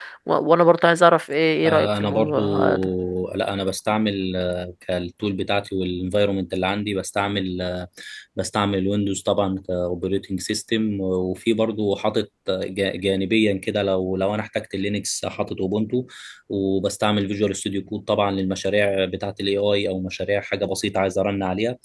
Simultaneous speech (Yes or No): Yes